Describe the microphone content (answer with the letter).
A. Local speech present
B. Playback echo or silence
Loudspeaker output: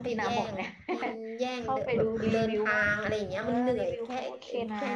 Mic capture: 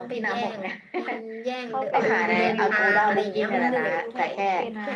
A